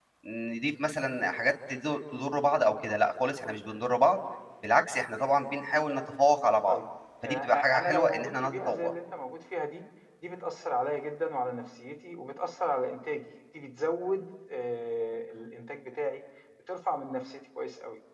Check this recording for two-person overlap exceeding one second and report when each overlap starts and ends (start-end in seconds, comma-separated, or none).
7.2-8.9